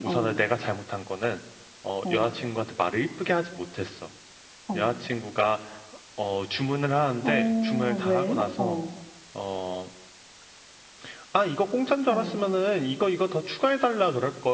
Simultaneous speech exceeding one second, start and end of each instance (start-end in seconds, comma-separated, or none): 7.2-8.8